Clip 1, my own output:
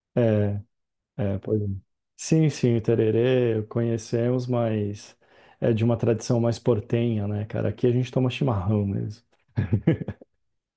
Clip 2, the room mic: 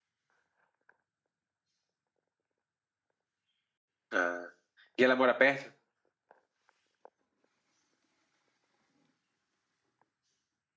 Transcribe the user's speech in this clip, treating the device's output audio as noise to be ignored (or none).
Ah. E ela mora perto?